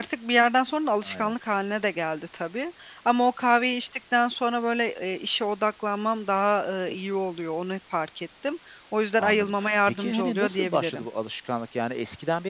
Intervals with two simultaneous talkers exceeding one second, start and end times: 9.2-11.0

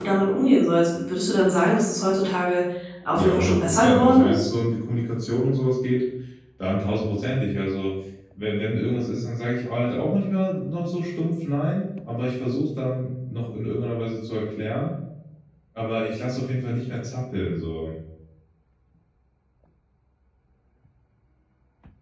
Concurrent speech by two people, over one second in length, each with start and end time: 3.2-4.4

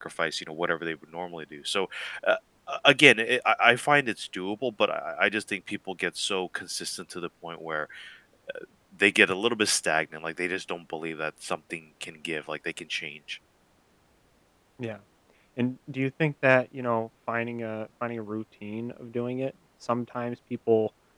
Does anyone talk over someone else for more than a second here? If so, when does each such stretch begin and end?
none

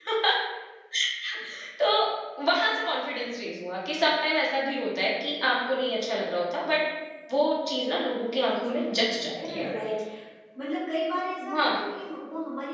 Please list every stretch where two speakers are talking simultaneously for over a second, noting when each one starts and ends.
8.4-9.7

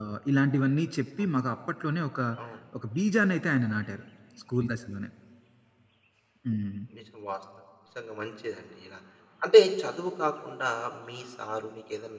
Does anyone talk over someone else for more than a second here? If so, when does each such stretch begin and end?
none

